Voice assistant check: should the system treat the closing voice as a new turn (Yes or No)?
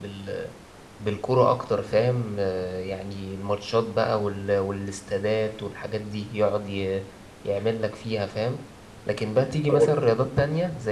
No